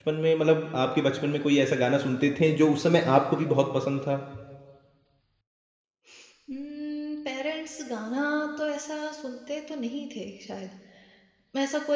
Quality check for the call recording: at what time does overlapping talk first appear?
none

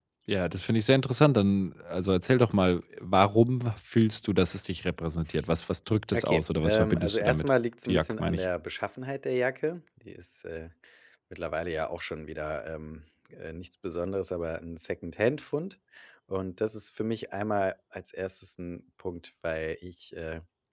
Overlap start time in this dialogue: 6 s

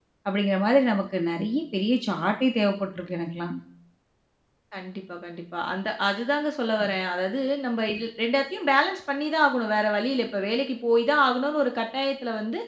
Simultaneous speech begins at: none

